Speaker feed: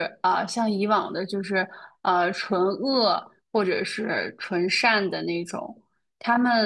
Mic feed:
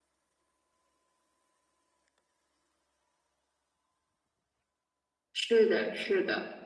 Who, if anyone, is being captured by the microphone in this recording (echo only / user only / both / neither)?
user only